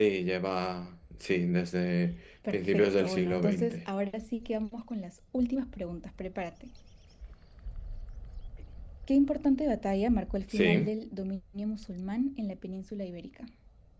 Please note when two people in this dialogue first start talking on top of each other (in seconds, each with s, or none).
2.5 s